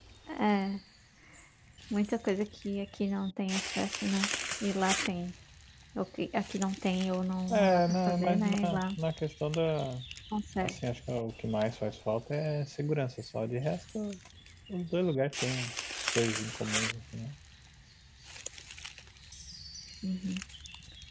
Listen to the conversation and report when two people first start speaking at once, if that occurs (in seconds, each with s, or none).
7.5 s